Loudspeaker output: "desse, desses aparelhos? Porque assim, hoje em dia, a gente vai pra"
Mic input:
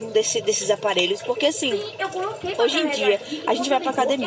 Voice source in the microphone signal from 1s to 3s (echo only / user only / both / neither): both